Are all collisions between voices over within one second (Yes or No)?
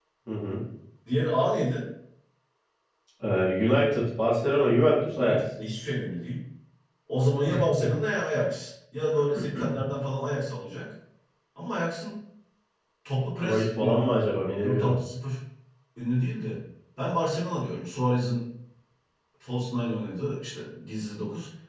No